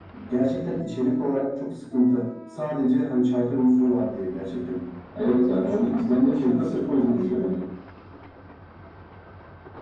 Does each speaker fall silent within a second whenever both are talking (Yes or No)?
No